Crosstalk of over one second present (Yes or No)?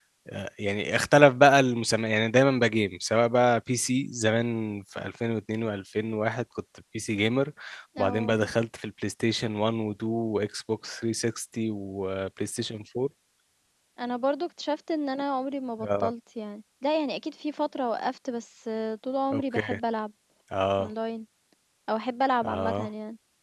No